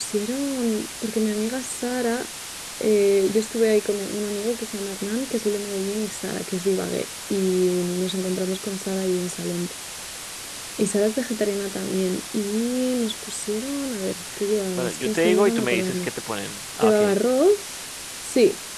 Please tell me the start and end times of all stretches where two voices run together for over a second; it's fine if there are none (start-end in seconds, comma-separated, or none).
14.8-16.1